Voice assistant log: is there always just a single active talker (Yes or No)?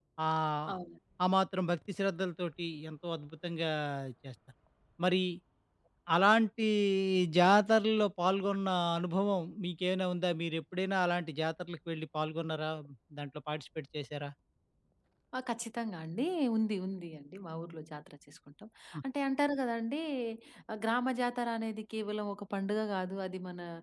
Yes